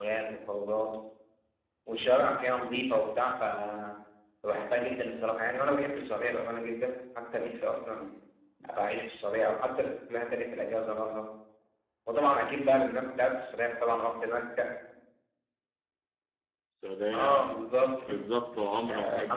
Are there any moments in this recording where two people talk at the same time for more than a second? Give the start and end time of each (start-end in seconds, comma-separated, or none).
none